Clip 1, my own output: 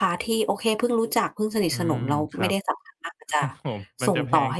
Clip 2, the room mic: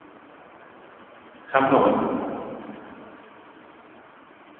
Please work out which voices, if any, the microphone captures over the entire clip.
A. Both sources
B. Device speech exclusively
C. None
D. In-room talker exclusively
D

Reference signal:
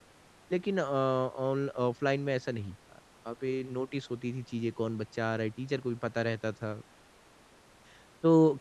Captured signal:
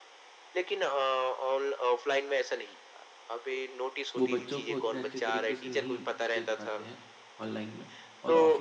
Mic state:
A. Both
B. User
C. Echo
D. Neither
A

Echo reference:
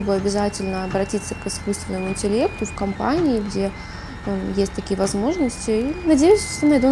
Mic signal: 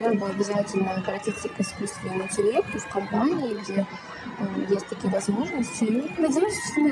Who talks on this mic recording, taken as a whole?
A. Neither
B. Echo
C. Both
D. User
B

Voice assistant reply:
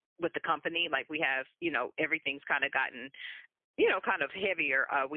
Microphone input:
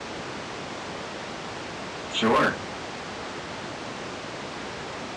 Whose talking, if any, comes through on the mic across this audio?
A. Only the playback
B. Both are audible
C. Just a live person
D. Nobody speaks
C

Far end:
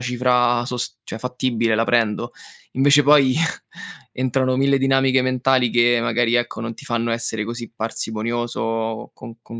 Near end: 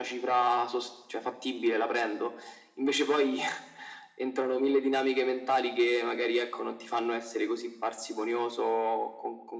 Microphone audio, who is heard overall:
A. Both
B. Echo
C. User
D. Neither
B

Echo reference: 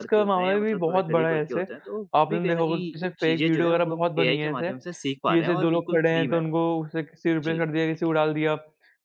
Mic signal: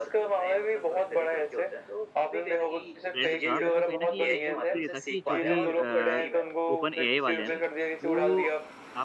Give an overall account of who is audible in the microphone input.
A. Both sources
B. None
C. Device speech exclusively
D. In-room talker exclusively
A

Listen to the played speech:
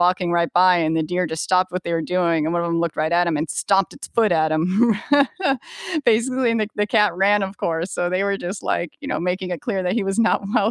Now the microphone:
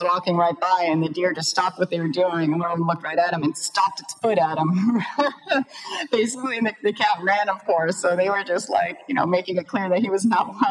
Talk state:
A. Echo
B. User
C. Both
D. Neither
A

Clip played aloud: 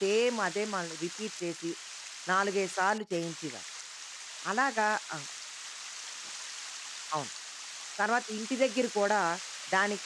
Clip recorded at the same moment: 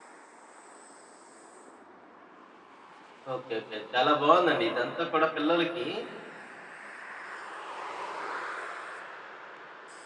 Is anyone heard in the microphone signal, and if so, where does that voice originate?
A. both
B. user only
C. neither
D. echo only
B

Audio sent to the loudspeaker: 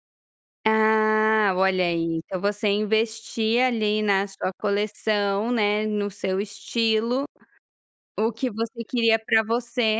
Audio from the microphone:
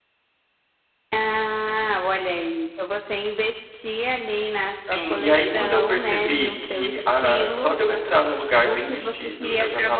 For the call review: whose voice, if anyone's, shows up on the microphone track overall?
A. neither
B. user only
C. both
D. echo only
C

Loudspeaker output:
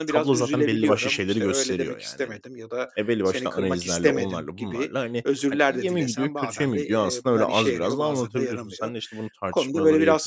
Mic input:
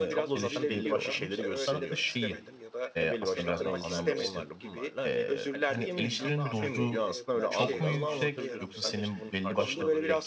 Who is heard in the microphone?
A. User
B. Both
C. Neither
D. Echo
B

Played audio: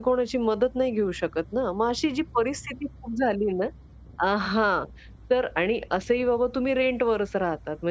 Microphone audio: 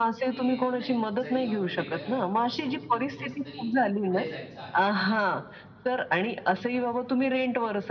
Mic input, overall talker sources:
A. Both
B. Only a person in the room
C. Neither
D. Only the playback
A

